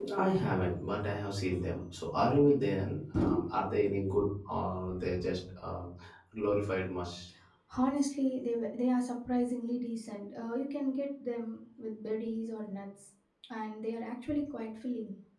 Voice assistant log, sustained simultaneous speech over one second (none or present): none